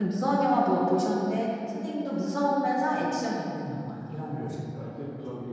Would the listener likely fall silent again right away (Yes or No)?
No